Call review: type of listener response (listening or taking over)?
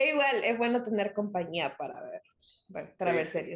listening